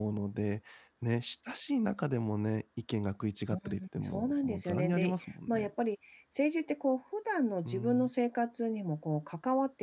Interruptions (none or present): present